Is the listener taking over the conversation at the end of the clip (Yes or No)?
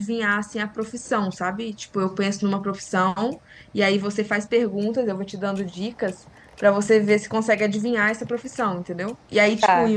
No